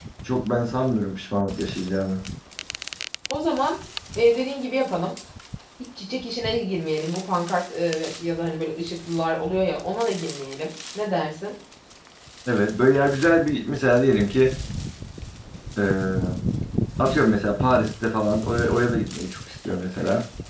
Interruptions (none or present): none